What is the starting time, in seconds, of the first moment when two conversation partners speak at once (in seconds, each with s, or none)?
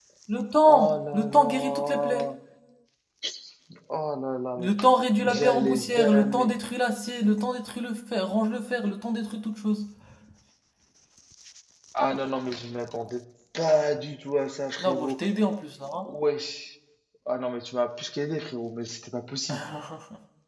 0.7 s